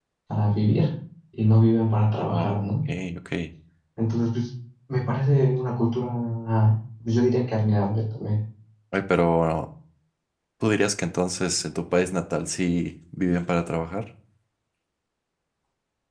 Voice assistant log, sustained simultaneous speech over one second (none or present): none